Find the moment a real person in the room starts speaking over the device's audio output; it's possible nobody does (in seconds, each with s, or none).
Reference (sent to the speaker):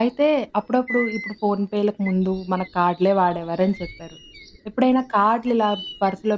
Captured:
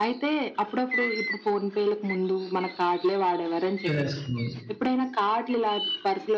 3.8 s